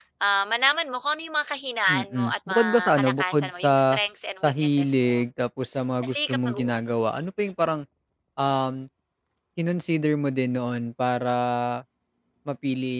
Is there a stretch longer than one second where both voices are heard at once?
Yes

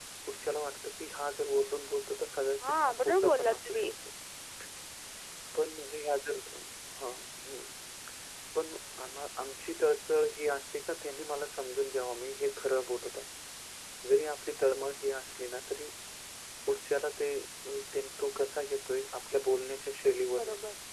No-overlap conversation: No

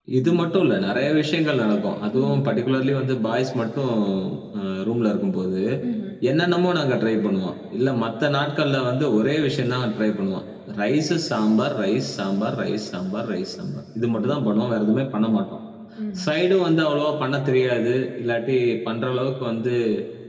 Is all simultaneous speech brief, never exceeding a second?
Yes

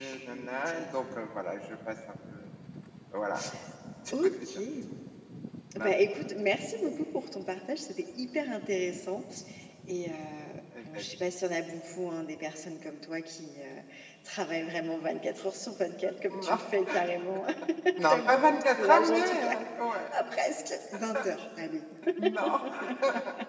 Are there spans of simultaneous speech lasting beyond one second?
Yes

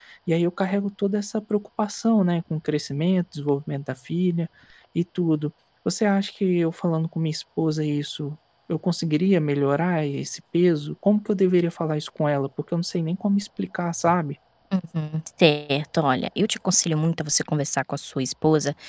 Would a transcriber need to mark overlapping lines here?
No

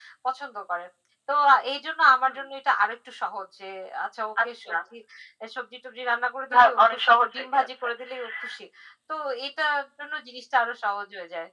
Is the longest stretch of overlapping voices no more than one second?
No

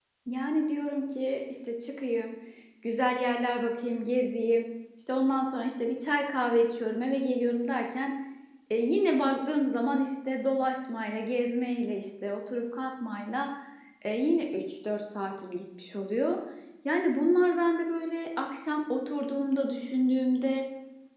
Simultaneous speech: No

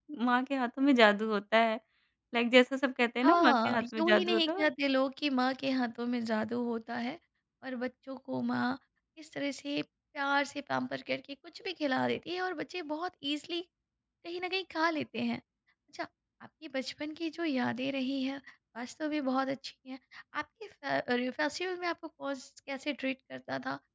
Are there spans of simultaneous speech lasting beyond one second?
Yes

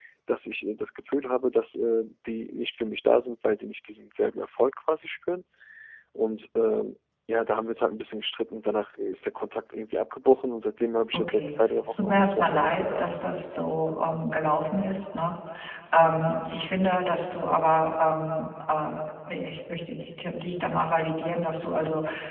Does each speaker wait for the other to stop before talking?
No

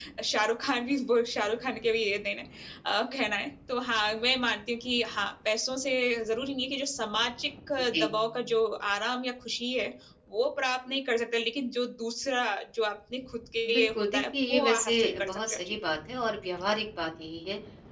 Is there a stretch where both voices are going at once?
Yes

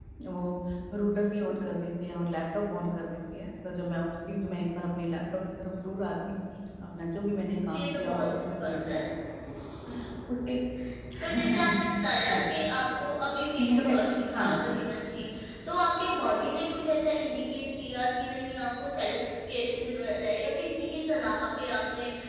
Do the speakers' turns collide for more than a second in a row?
Yes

